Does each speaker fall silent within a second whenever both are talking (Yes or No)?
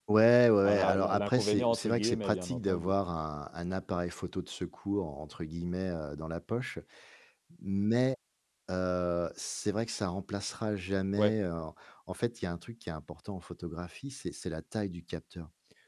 No